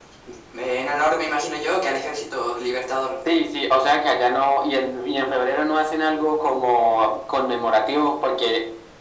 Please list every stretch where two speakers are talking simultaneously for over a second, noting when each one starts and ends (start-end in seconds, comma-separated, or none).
none